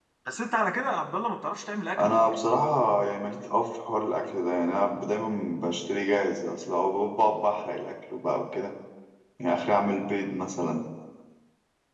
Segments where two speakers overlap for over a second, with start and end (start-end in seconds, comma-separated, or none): none